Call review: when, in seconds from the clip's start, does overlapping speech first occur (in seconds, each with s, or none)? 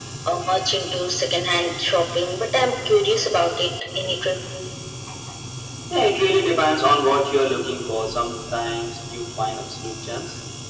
none